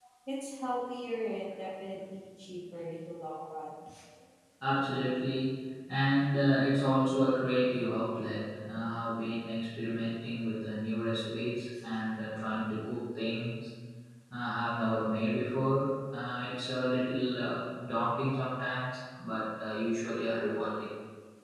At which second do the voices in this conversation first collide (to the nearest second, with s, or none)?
none